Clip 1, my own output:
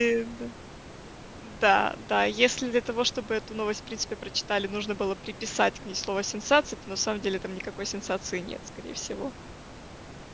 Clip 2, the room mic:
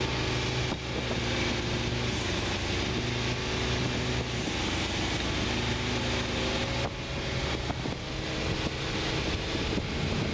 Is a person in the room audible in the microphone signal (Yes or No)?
No